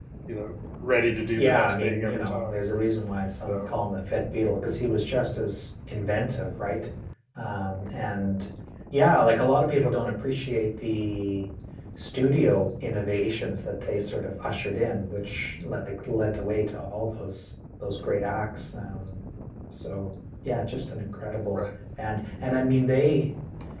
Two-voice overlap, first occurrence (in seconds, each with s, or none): 1.4 s